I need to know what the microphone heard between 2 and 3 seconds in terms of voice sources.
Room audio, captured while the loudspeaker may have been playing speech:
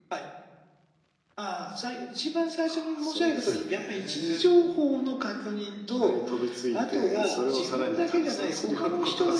echo only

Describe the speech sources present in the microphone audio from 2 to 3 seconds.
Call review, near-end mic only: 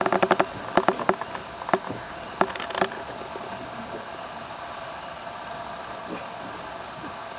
neither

